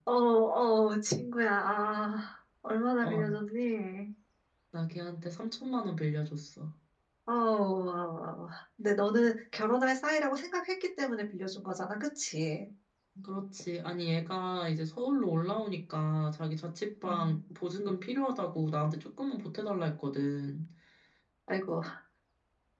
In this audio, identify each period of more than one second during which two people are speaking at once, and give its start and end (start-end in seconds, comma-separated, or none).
none